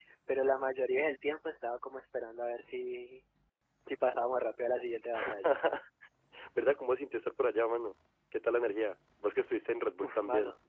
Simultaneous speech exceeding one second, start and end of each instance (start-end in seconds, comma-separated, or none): none